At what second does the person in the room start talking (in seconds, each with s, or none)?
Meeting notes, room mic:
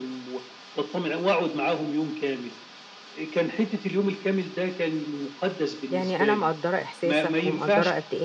5.9 s